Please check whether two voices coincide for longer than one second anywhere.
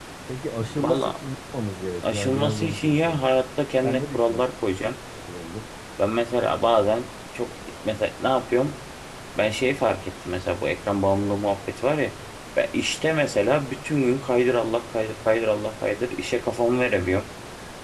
Yes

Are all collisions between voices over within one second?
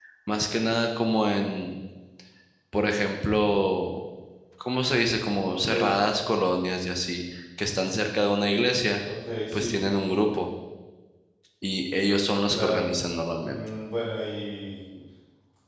Yes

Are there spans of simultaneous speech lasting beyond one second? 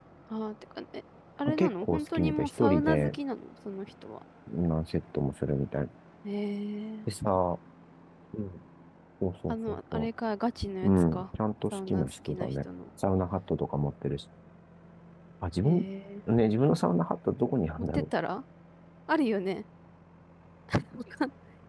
Yes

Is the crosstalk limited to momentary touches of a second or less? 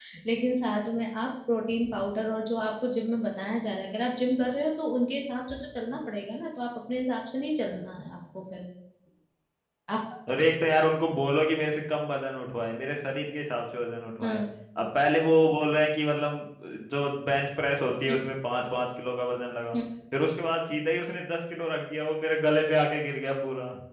Yes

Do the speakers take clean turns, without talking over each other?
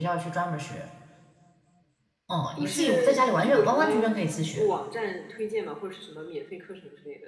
No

